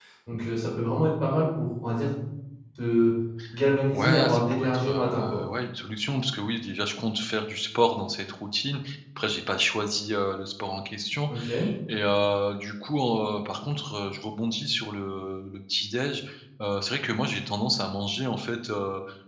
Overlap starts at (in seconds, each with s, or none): 3.9 s